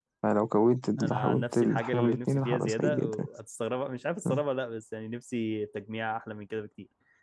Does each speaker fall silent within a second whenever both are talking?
No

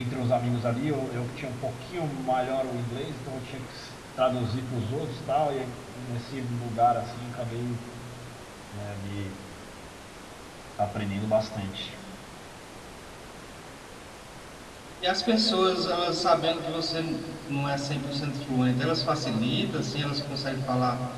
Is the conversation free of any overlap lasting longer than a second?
Yes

